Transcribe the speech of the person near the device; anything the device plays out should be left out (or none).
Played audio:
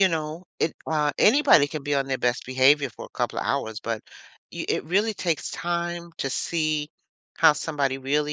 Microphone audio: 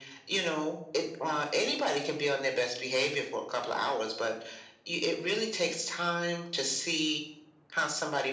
none